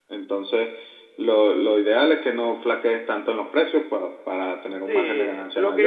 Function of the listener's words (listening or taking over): taking over